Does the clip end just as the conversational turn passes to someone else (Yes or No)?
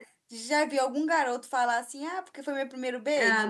Yes